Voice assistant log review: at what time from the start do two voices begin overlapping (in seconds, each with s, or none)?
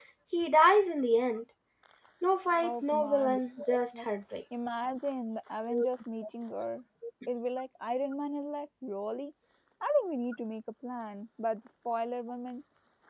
2.6 s